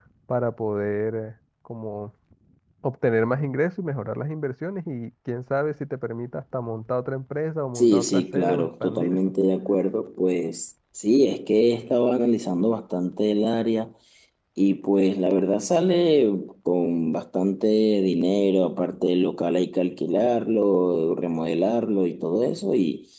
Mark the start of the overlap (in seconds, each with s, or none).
7.8 s